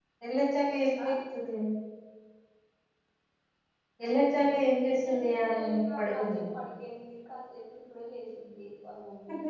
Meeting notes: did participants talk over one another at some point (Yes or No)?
Yes